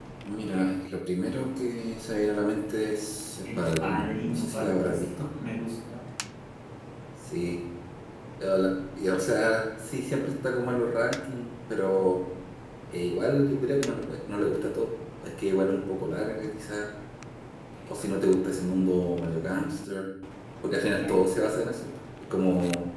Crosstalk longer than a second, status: present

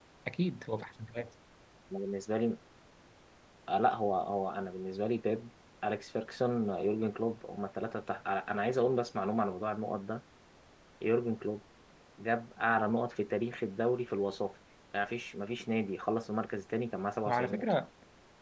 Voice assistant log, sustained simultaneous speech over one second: none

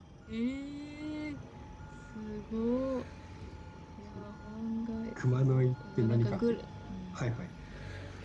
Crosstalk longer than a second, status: present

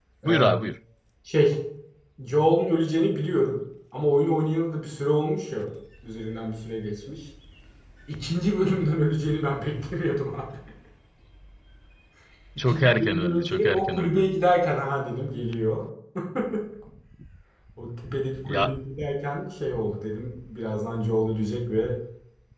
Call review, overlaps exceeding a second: present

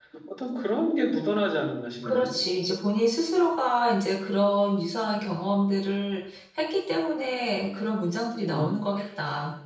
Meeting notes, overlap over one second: none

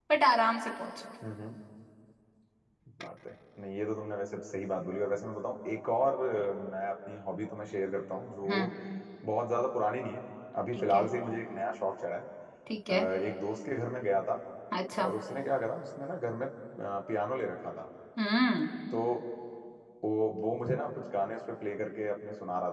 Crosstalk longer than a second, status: none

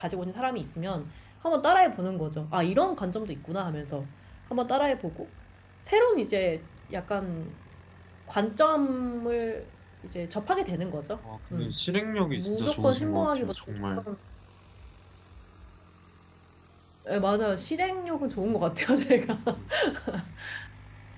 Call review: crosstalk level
present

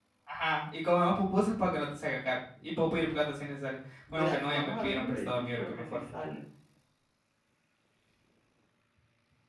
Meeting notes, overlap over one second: present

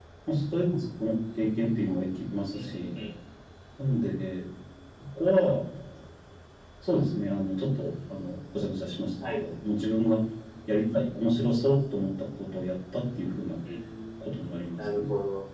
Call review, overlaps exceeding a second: none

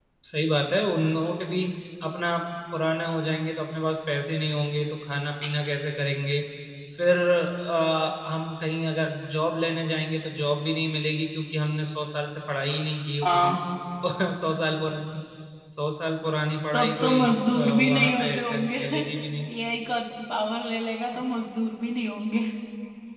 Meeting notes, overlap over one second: present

